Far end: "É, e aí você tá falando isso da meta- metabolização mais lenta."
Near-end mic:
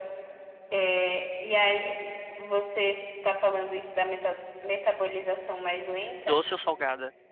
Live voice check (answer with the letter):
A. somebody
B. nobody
A